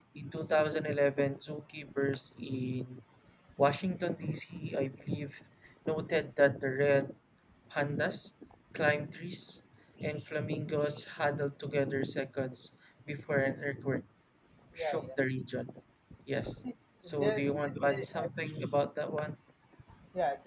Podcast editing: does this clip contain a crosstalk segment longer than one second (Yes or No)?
Yes